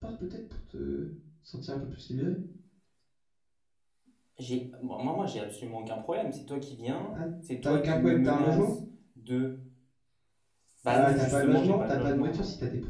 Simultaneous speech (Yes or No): Yes